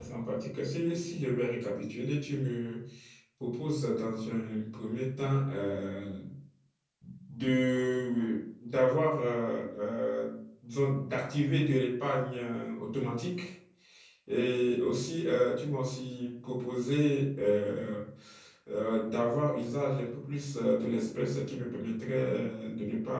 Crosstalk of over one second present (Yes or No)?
No